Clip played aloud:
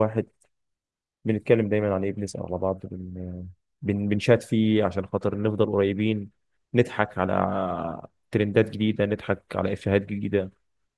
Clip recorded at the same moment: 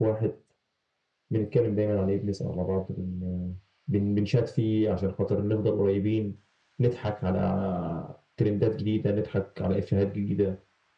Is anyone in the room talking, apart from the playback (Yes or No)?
No